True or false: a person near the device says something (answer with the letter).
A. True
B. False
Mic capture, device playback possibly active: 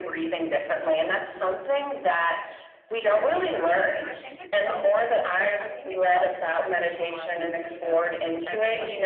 A